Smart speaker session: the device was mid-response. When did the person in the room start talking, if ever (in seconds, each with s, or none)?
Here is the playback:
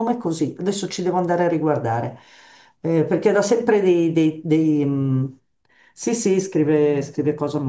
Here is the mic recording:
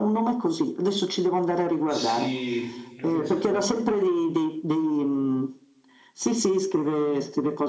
1.8 s